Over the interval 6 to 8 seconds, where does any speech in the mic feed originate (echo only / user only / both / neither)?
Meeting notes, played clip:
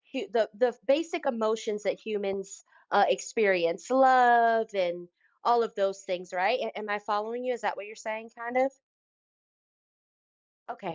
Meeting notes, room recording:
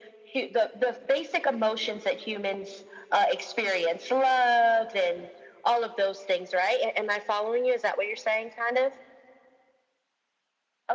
echo only